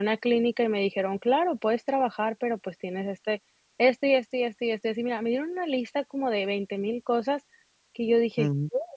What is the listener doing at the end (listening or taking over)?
listening